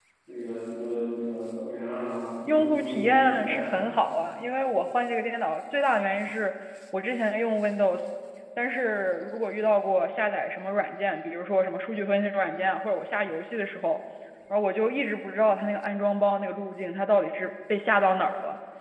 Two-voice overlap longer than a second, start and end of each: 2.5-3.8

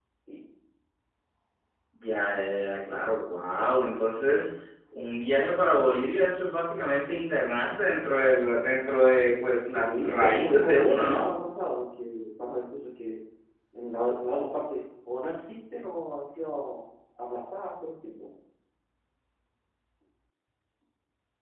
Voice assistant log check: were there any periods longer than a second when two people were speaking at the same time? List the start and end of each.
9.8-11.2

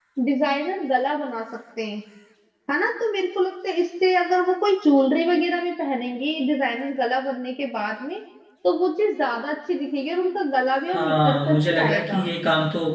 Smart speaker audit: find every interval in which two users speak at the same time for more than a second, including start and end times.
10.9-12.2

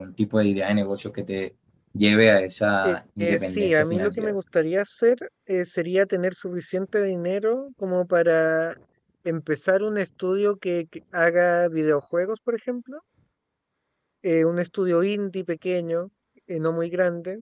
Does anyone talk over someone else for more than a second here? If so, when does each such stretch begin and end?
2.8-4.3

